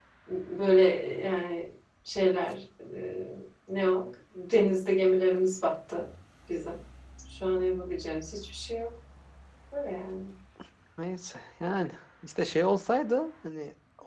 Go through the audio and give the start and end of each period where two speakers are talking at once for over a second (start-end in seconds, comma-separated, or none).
none